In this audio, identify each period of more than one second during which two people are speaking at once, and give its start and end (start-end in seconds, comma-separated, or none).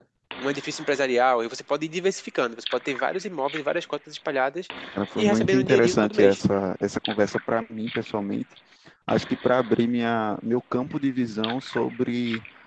5.2-6.4